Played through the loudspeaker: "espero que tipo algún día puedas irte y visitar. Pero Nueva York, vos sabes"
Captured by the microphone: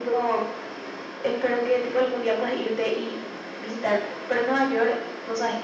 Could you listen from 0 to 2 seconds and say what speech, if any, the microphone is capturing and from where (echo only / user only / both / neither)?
echo only